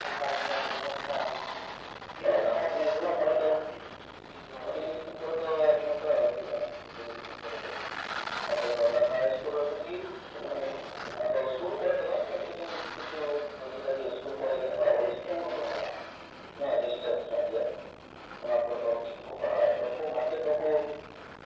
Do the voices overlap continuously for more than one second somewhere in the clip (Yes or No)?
Yes